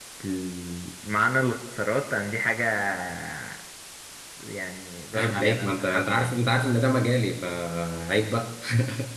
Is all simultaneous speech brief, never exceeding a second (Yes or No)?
No